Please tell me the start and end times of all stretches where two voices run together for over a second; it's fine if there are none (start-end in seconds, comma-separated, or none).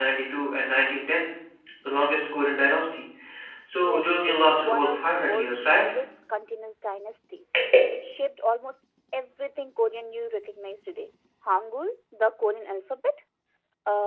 3.8-5.9